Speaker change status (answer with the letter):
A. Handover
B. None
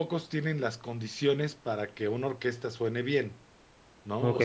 B